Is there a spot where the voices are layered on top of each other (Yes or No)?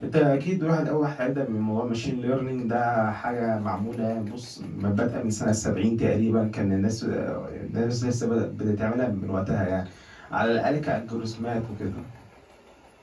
No